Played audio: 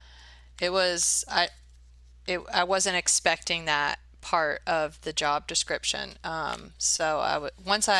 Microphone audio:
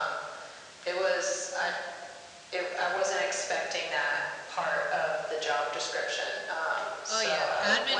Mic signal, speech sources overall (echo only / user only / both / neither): both